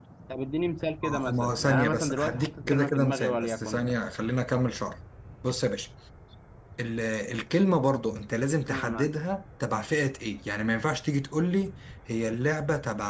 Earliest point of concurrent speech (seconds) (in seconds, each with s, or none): 1.0 s